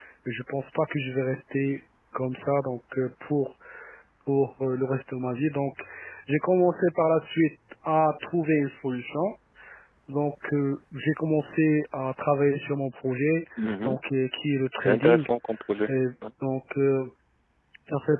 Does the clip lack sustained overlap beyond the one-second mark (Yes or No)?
Yes